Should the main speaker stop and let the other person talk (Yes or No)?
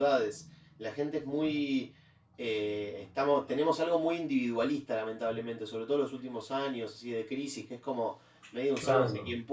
No